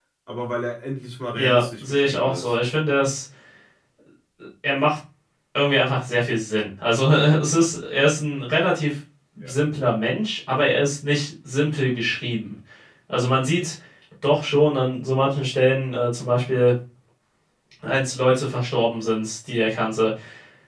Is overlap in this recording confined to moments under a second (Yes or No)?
No